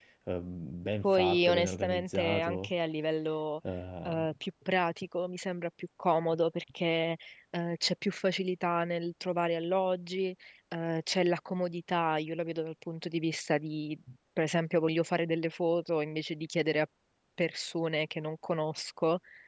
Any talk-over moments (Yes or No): Yes